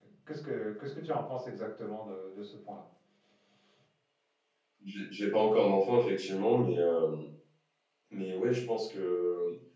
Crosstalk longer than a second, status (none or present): none